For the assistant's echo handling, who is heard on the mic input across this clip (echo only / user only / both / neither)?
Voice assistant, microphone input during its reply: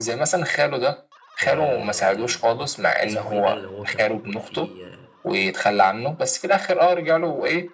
both